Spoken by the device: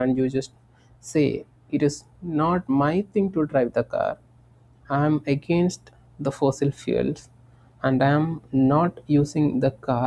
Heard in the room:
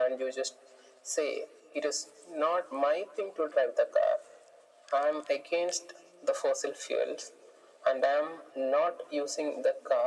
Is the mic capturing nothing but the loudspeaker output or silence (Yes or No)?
Yes